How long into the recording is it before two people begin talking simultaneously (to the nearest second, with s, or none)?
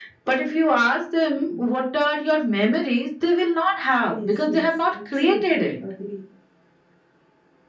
4 s